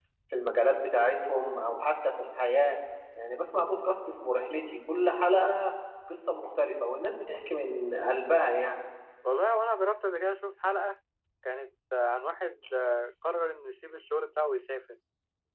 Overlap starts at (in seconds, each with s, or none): none